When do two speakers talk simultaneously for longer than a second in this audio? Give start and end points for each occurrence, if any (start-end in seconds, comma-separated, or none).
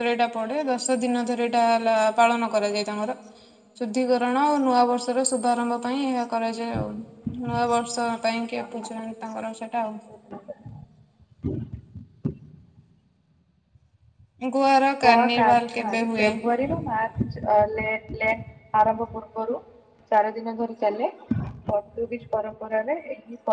15.0-16.3